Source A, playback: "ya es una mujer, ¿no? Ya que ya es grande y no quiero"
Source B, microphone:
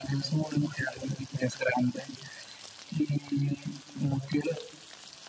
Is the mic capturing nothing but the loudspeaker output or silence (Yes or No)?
Yes